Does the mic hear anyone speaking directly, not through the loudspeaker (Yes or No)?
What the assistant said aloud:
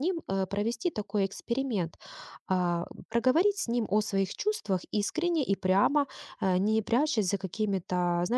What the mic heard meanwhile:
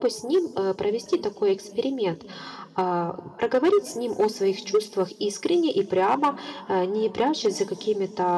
No